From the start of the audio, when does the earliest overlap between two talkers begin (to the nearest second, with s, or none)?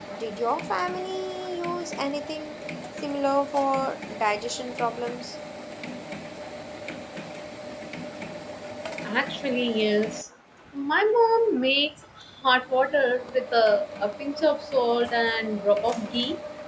none